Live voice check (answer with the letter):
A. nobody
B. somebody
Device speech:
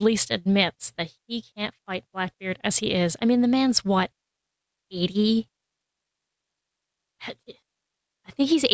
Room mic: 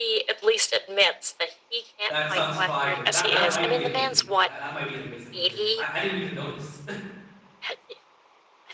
B